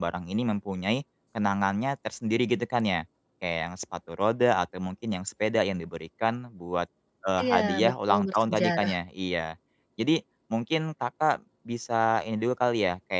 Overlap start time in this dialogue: 7.4 s

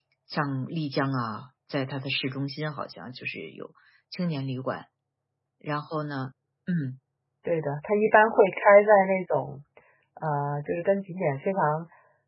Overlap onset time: none

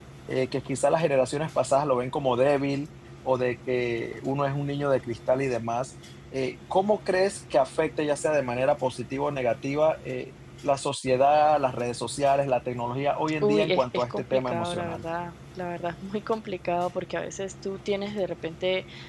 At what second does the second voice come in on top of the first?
13.4 s

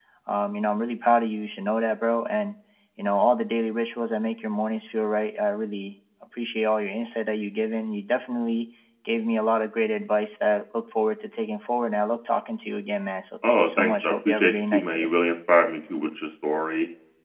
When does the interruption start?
13.4 s

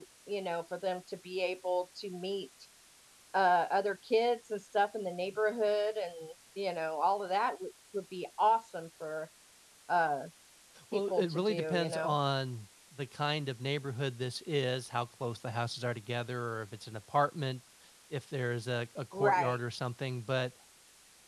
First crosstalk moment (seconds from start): 10.9 s

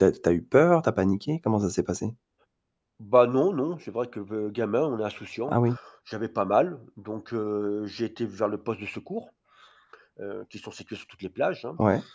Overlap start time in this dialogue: none

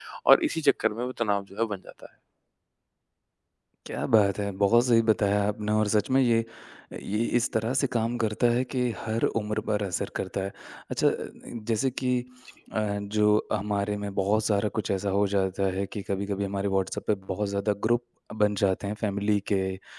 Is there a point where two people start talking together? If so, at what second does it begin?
none

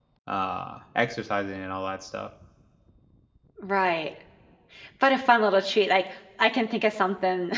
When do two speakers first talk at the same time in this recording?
none

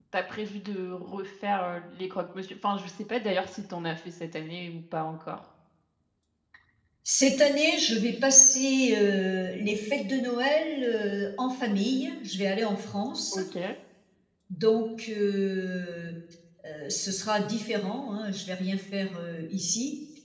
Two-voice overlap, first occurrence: none

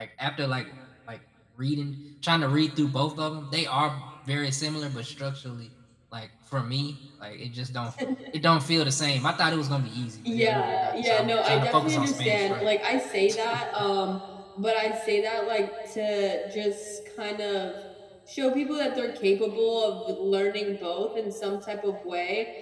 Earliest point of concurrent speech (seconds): 10.3 s

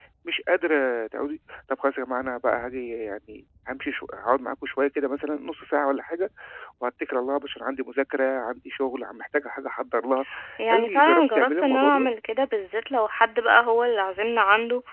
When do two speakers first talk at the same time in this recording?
10.7 s

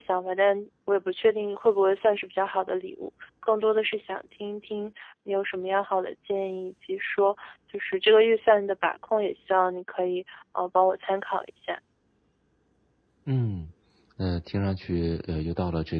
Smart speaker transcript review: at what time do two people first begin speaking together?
none

